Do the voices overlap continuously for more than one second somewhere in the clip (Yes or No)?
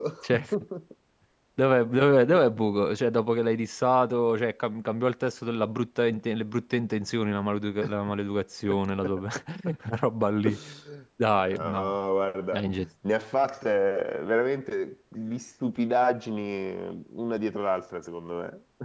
No